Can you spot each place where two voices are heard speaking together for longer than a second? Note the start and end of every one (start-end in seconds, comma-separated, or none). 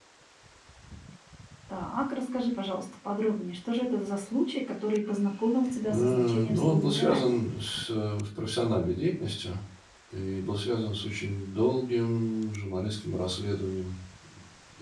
5.9-7.4